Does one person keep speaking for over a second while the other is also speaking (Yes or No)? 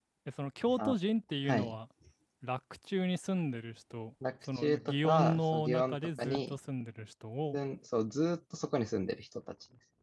Yes